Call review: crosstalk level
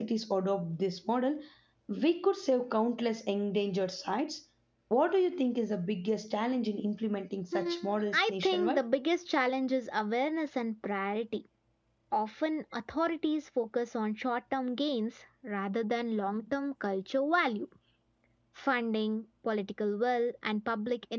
present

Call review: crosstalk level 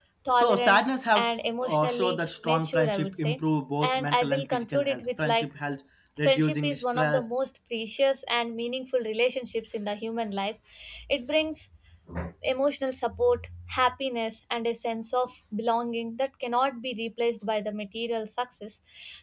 present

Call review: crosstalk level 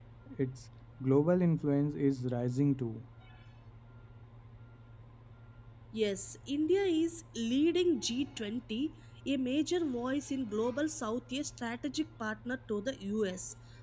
none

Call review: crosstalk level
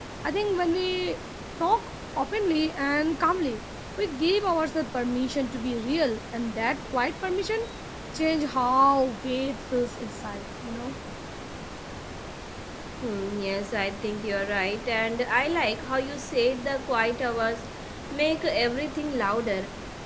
none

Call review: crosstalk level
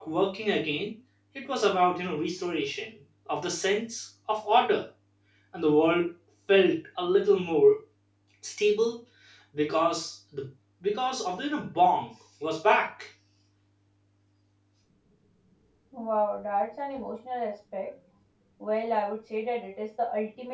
none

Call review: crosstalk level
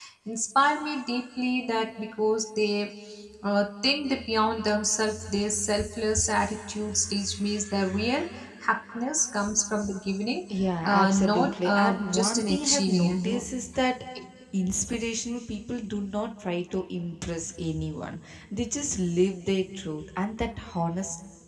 present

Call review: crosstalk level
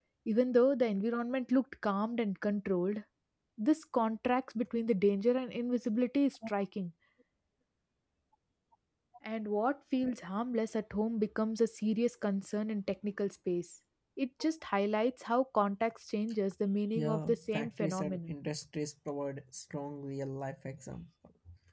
present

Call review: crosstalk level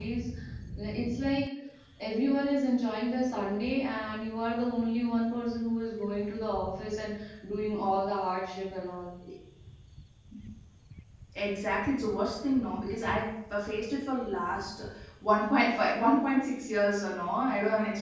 none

